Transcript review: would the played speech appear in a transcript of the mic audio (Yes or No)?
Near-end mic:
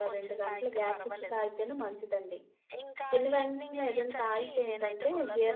Yes